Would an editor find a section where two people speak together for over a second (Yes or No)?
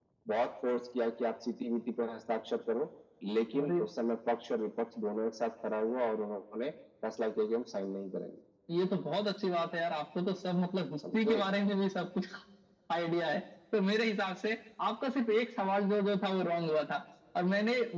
No